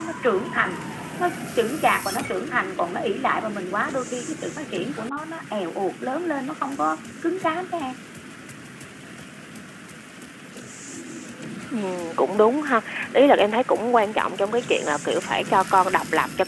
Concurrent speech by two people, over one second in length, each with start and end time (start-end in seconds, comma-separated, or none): none